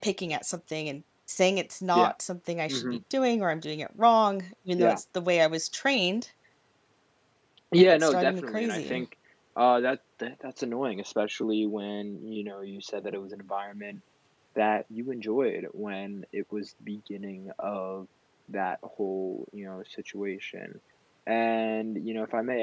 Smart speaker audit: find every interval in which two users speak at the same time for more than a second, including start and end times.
7.8-9.0

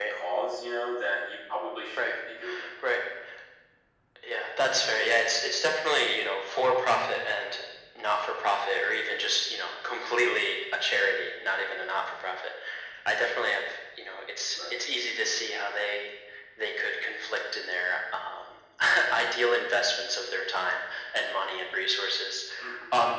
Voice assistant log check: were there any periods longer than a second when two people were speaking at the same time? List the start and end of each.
none

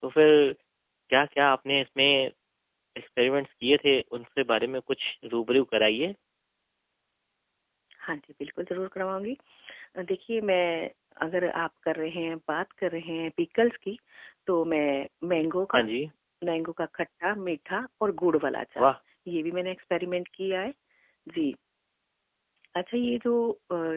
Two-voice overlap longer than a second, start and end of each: none

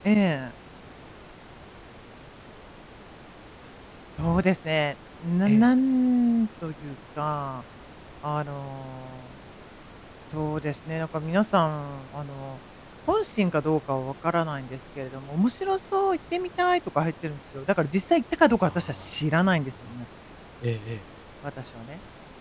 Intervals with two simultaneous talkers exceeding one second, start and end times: 18.6-19.9

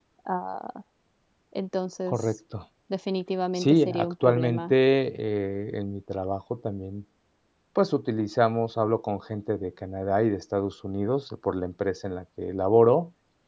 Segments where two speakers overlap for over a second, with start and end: 3.5-4.8

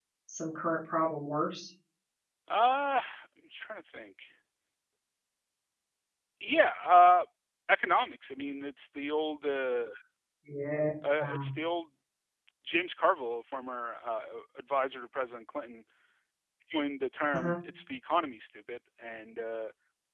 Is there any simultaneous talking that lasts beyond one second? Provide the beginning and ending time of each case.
none

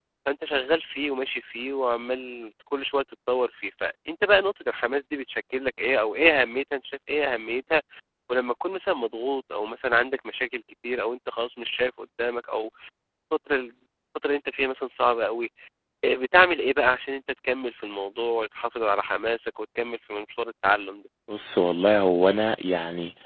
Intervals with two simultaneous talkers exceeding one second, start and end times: none

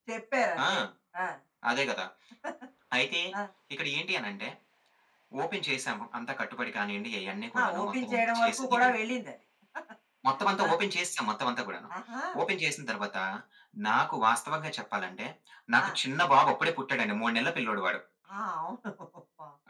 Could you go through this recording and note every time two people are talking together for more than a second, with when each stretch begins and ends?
7.6-8.9

